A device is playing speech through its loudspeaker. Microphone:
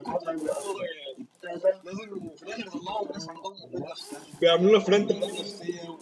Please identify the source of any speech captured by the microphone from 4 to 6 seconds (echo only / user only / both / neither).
both